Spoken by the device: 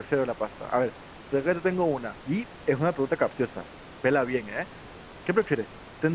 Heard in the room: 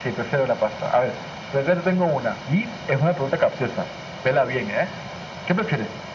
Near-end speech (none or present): none